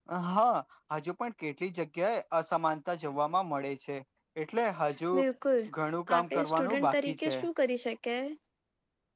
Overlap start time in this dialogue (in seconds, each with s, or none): 6.2 s